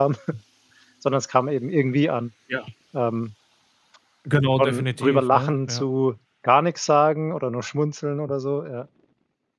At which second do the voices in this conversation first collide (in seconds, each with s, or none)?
4.6 s